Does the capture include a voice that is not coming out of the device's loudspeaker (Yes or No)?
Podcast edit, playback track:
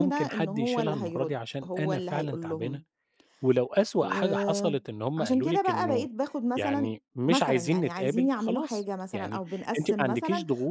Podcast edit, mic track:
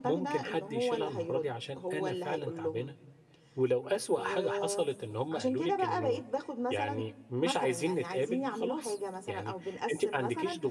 No